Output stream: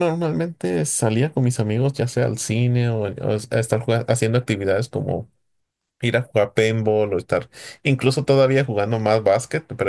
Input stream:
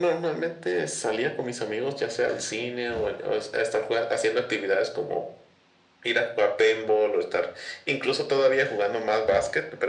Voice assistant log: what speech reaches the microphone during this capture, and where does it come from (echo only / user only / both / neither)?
echo only